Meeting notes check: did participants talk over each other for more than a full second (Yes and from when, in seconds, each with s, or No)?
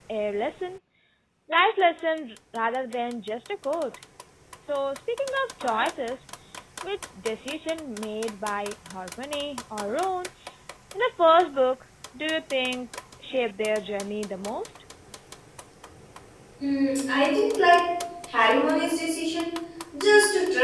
No